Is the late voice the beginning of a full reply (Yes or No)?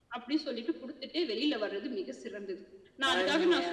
No